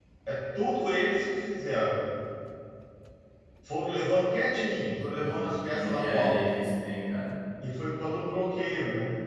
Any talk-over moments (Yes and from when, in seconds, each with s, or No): Yes, from 4.7 s